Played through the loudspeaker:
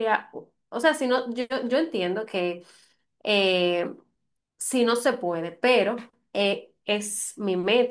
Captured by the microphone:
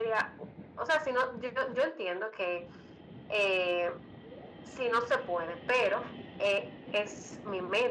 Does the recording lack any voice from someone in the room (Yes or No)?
Yes